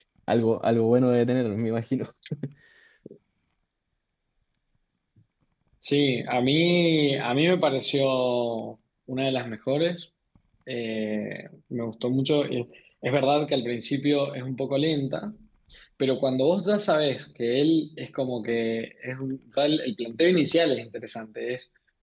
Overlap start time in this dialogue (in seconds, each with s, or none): none